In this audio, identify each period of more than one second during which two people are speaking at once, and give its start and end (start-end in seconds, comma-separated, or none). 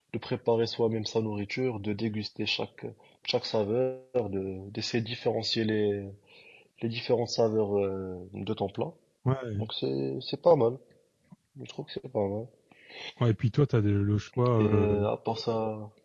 none